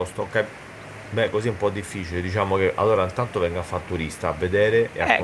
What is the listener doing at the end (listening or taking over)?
taking over